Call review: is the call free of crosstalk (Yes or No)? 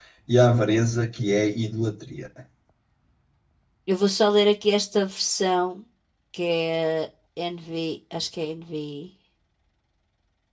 Yes